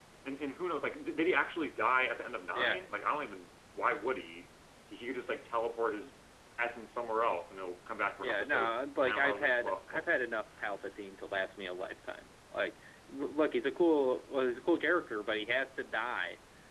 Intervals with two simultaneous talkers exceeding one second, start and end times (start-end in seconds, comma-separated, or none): 8.2-10.0